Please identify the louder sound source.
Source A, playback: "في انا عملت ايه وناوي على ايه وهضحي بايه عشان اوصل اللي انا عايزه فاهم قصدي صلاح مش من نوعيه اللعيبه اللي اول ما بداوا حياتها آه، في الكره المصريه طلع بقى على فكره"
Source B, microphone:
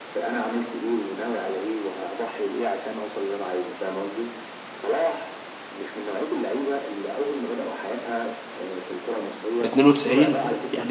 user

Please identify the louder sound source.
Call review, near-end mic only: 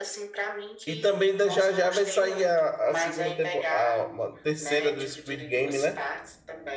user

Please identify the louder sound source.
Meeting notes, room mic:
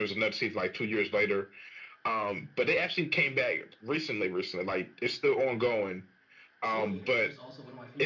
echo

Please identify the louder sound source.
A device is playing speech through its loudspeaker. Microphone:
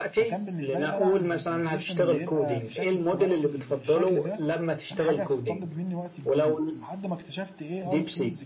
echo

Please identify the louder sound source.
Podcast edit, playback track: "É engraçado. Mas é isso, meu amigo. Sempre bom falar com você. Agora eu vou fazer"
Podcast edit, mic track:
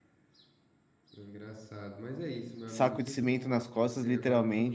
user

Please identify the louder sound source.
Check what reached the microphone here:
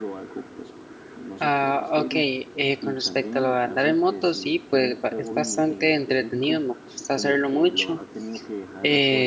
user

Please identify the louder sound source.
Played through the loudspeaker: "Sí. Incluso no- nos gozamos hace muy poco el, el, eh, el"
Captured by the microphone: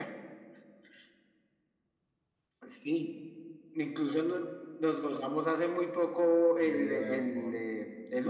echo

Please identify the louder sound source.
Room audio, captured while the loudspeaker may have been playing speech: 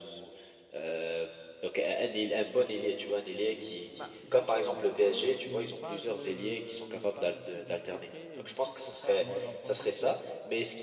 echo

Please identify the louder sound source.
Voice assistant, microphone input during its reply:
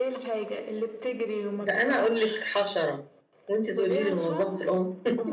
user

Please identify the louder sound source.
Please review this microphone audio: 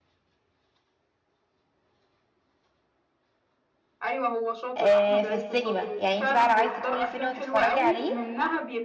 user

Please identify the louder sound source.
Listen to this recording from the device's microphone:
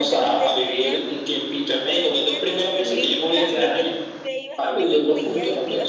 echo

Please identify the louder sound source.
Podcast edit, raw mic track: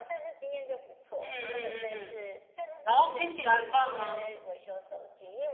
user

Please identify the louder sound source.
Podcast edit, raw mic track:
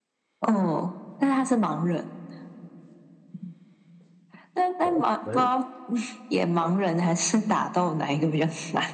echo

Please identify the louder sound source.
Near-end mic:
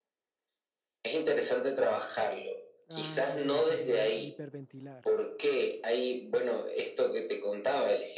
echo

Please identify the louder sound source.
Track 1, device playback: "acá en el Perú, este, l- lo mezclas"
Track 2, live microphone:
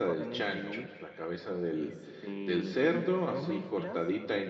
user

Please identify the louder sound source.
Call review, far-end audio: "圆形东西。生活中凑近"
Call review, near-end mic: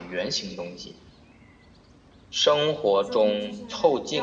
echo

